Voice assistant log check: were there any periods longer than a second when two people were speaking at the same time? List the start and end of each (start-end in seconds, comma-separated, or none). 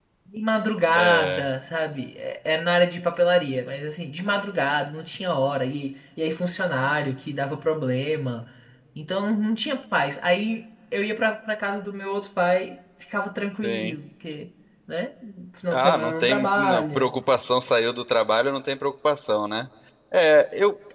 15.7-17.1